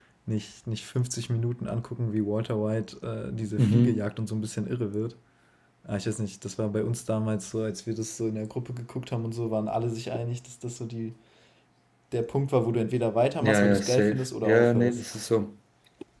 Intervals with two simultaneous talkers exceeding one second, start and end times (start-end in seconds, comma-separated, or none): 13.4-15.0